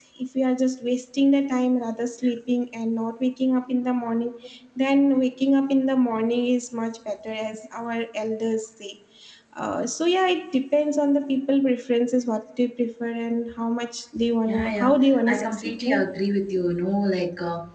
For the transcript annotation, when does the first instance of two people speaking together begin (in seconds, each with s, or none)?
14.5 s